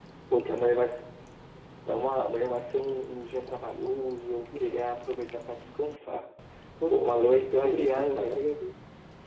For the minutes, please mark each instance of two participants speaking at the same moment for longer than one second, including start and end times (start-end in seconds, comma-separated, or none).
6.9-8.4